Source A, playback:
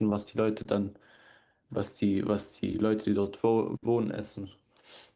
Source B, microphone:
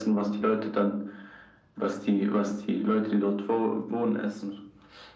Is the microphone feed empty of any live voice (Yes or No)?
Yes